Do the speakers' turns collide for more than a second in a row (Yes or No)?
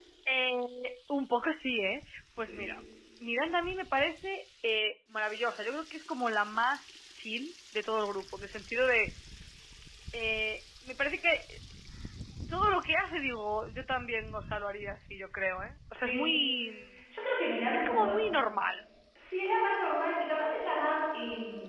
No